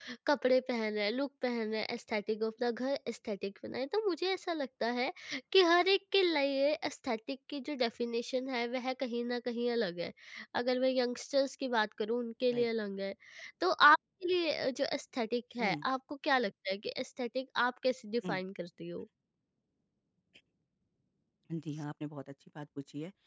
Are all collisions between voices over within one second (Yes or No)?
Yes